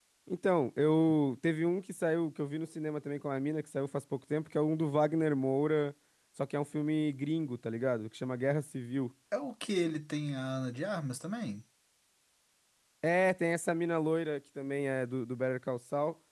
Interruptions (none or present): none